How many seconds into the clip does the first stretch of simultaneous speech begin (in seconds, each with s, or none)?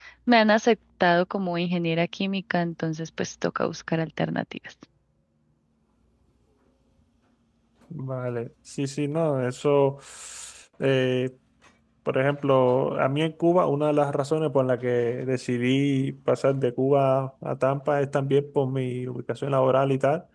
none